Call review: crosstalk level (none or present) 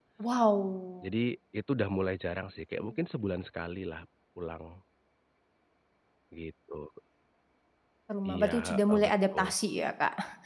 present